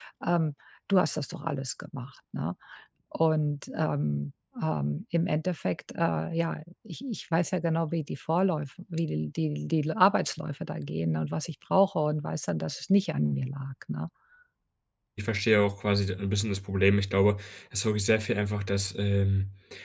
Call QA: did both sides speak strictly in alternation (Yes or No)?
Yes